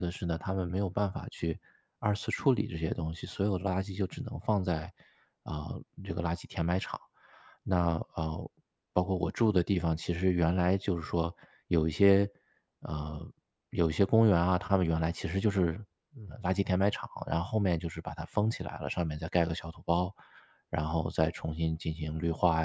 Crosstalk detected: No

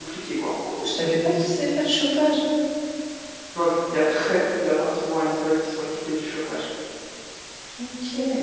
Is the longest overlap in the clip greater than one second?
No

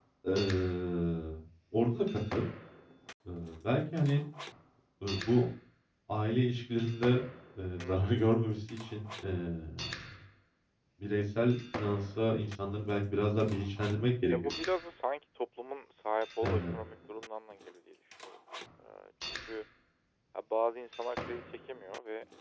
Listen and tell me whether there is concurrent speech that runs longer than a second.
No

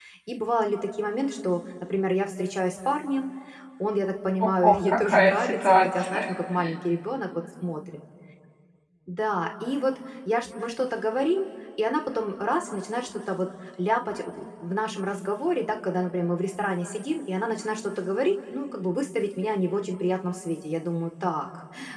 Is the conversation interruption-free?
No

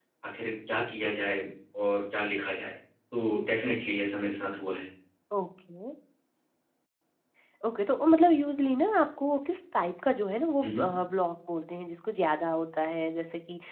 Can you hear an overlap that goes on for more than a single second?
No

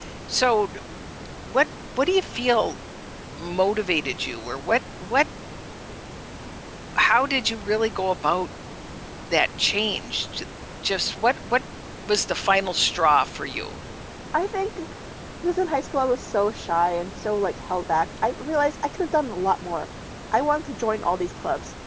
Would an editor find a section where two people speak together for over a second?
No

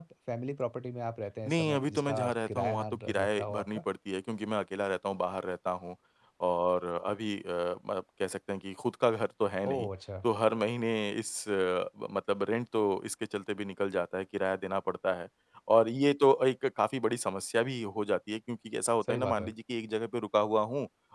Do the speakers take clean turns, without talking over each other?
No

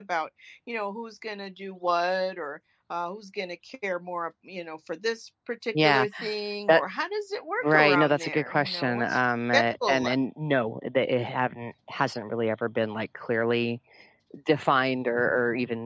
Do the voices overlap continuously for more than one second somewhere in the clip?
Yes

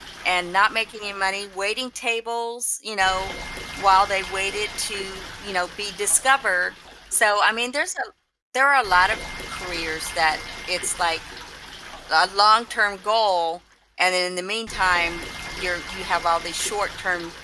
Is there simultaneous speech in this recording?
No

